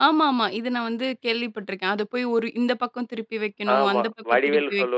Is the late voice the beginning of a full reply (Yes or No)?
Yes